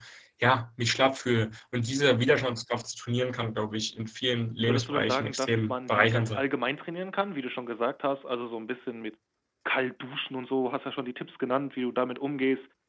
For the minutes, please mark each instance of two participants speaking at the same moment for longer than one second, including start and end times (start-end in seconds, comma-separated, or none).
4.7-6.4